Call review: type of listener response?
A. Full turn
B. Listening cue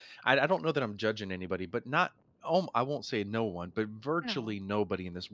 B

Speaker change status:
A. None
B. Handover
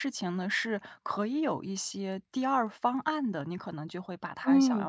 A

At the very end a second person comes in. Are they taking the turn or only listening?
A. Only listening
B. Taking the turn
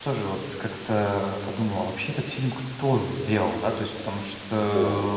A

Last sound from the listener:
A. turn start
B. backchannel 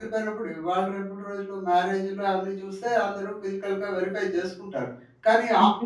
B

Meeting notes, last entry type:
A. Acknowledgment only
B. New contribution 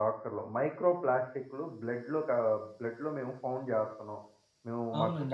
B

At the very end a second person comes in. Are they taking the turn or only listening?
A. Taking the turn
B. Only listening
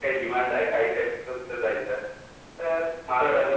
A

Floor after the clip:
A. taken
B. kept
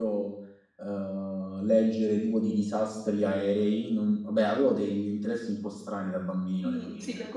A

